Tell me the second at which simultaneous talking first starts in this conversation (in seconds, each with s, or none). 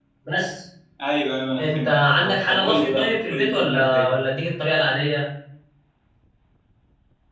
1.6 s